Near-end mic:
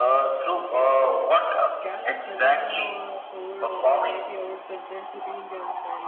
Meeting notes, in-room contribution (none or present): present